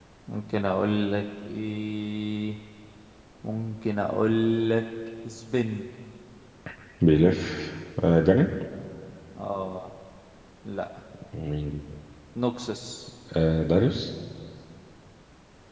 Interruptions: none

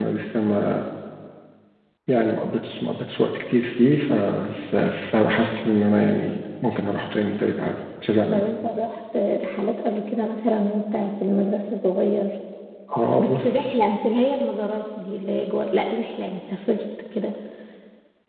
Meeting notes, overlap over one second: none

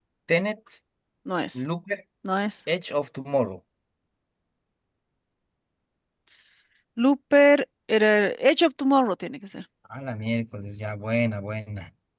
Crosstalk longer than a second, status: none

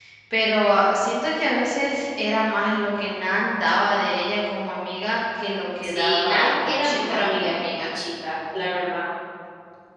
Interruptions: present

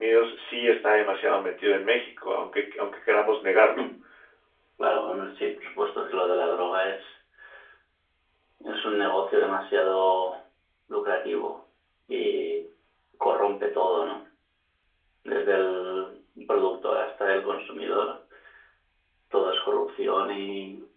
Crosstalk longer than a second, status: none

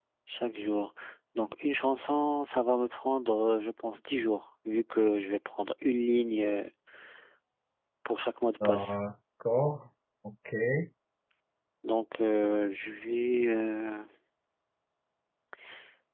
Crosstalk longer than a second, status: none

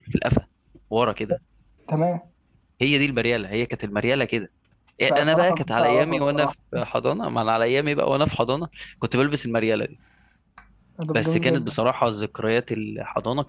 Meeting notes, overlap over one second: present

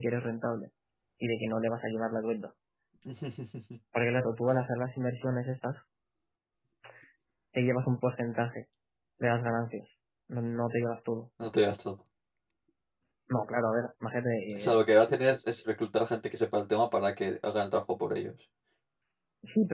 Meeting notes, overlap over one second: none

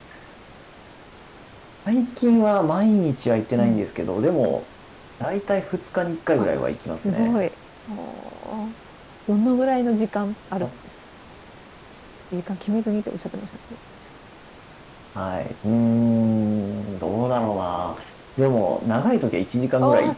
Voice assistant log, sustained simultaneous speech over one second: none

